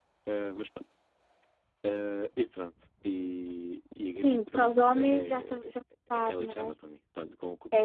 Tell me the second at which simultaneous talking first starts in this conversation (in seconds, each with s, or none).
4.2 s